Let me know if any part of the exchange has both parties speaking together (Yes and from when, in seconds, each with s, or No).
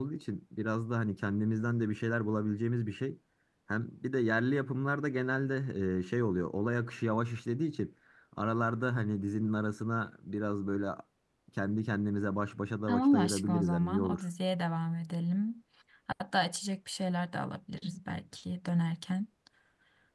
Yes, from 12.9 s